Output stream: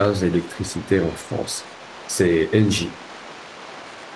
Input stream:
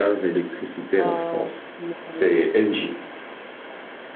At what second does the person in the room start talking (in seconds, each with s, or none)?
0.9 s